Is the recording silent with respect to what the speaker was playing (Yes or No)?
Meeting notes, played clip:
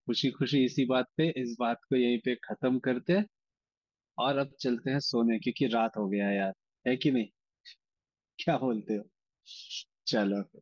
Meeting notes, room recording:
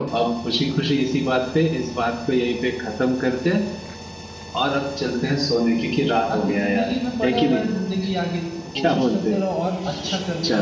No